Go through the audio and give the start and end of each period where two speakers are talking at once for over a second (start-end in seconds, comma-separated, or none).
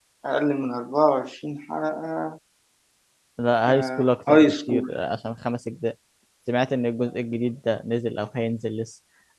3.7-4.9